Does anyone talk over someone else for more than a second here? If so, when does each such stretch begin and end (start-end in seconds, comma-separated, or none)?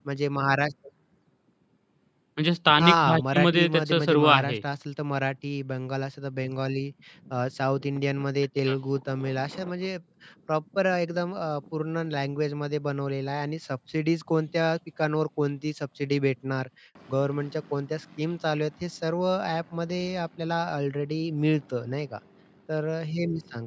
2.8-4.6